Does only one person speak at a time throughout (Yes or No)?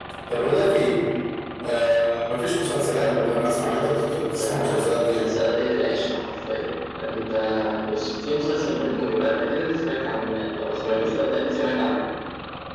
No